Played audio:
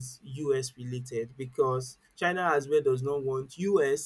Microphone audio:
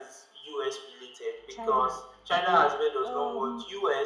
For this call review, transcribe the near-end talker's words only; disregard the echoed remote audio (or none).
China. I think um,